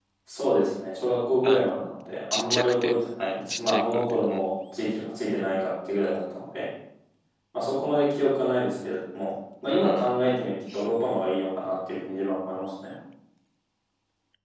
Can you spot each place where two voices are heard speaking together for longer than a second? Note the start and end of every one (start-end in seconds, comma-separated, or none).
2.3-4.5